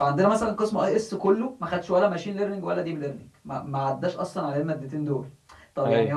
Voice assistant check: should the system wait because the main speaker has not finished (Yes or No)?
Yes